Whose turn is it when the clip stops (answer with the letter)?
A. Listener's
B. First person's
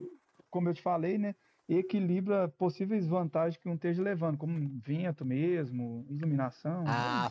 A